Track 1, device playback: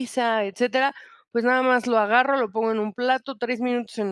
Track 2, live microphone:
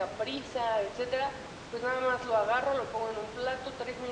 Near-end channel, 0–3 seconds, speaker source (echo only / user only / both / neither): echo only